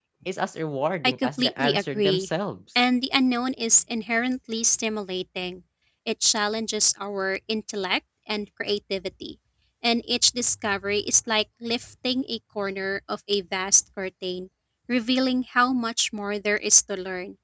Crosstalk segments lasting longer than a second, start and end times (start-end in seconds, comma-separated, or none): 1.0-2.3